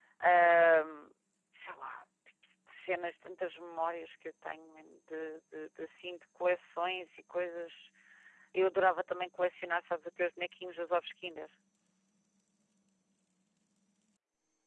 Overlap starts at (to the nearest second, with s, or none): none